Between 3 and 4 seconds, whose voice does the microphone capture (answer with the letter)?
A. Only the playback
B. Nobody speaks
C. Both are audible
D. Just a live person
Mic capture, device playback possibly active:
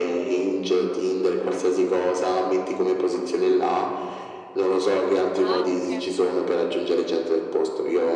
A